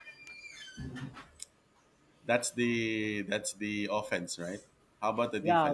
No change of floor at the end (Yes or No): No